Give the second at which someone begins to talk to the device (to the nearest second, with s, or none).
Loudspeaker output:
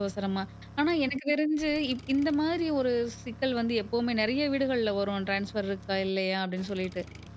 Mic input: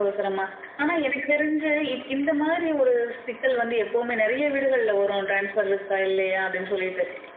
none